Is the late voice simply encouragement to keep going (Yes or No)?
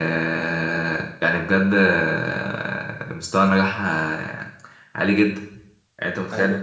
Yes